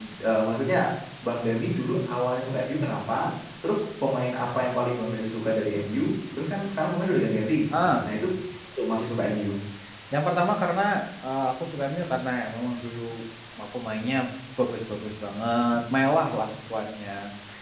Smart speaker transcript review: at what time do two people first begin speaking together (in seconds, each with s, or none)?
none